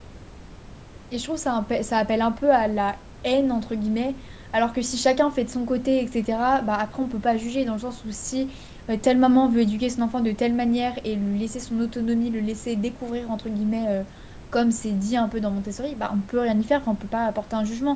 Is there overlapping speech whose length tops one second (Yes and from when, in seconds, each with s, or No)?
No